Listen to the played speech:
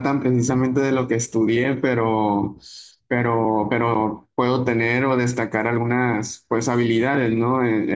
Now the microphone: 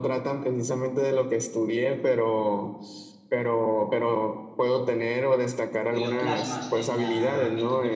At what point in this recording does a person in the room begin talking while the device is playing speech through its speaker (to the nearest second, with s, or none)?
6 s